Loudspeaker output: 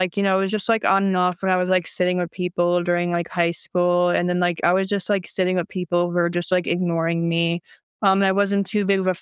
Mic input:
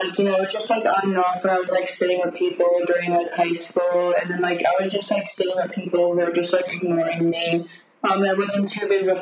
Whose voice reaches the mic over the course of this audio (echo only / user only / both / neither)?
echo only